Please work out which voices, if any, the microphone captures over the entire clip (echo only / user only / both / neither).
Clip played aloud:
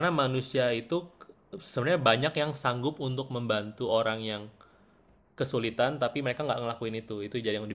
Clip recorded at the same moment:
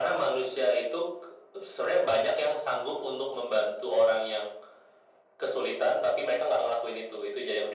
echo only